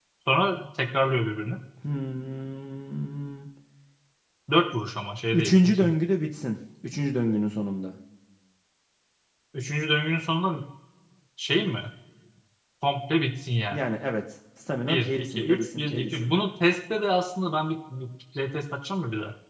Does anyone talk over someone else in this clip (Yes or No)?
Yes